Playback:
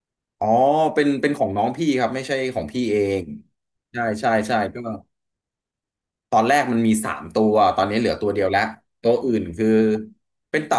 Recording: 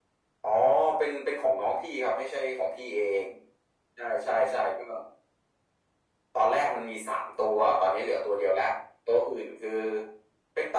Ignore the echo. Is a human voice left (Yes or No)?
No